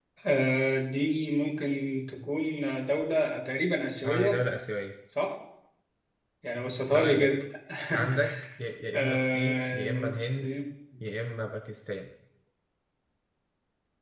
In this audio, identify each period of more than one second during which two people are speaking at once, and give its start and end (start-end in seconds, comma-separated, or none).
8.9-10.5